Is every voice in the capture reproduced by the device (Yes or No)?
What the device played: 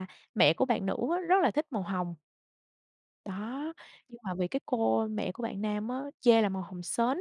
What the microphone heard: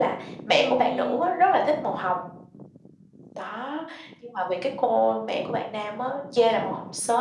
No